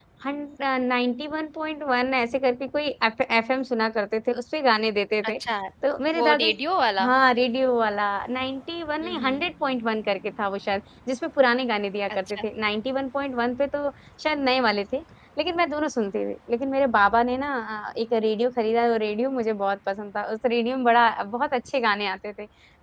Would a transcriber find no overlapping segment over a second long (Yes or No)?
Yes